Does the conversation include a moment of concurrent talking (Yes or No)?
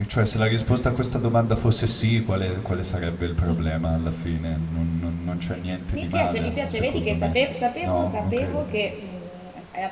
Yes